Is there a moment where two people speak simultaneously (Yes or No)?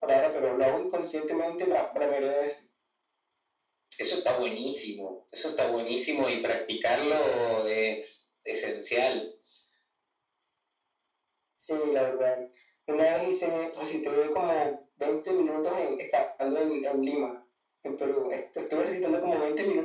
No